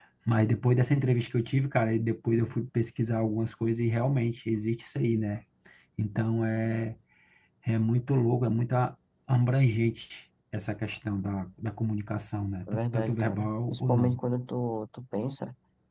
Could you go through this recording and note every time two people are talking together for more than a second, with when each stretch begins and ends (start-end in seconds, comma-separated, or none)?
12.7-14.2